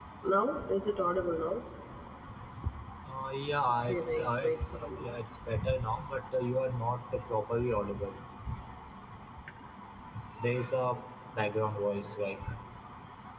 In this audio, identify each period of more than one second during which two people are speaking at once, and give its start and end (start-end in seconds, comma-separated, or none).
3.9-5.1